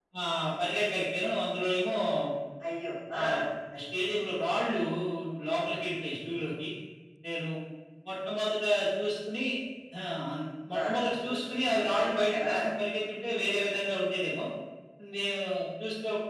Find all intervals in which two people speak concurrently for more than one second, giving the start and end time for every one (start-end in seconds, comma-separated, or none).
10.7-12.7